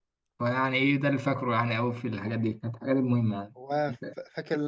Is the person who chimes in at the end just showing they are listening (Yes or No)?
No